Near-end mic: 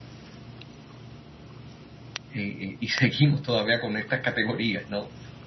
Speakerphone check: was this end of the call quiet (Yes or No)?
No